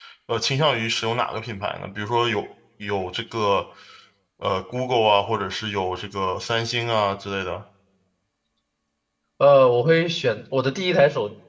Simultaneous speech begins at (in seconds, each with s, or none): none